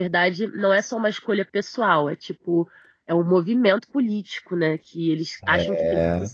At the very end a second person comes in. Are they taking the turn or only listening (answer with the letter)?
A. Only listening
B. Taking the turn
A